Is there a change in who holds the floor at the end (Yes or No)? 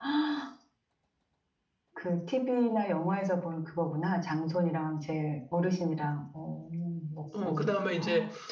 Yes